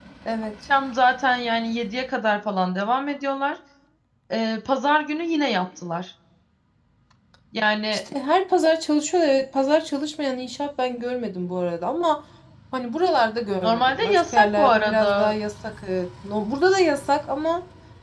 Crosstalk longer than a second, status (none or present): present